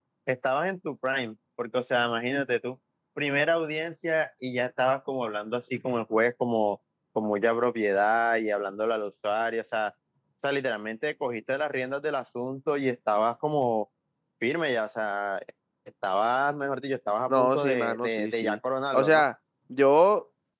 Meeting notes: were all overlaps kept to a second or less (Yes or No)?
No